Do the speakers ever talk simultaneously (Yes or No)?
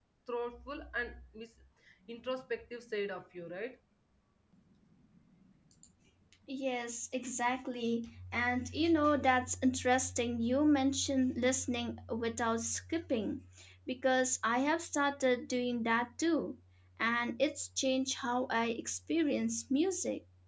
No